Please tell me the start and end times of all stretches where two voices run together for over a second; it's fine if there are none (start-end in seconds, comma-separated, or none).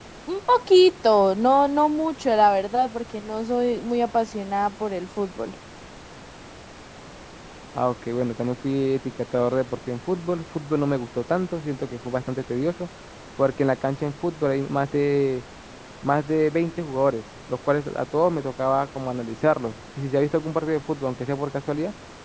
none